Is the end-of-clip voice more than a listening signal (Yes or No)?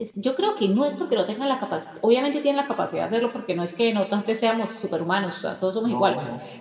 No